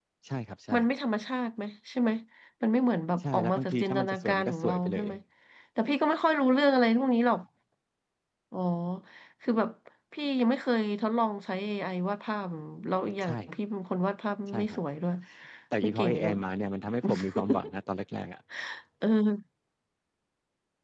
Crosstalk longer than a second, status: present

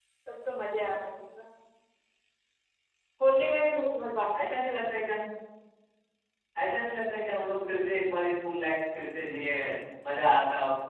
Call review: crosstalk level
none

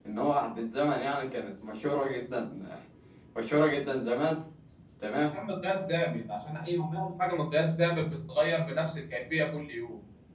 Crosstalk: none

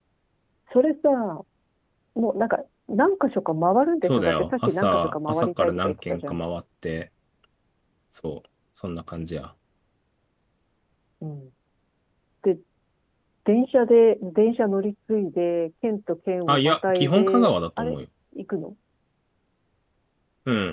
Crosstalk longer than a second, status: present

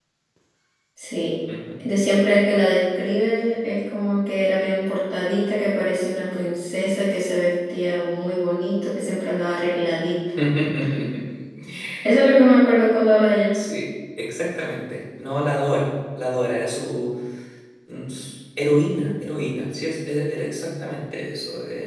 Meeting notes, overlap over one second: none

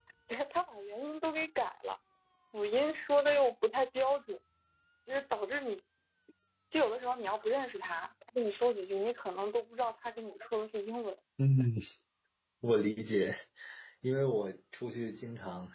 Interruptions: none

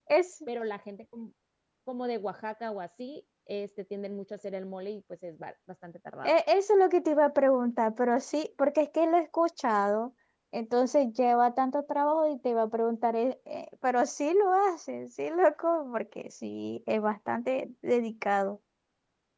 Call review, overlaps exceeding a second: none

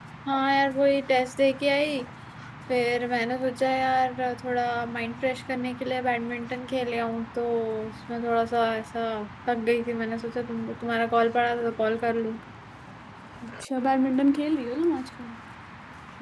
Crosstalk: none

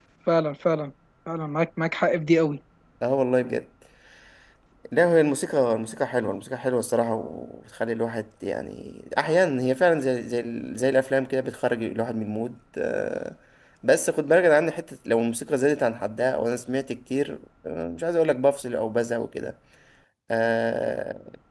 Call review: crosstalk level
none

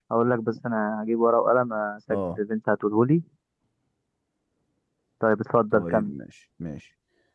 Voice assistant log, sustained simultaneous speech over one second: none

